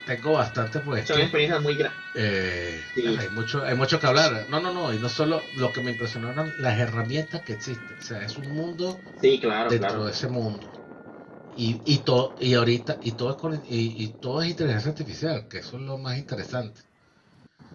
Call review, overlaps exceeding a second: none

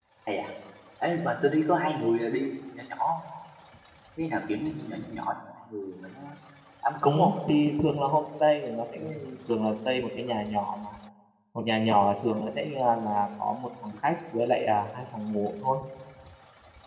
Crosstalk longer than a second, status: none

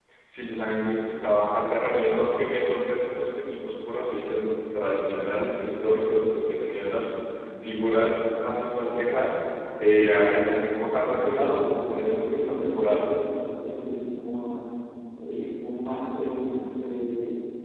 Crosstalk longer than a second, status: present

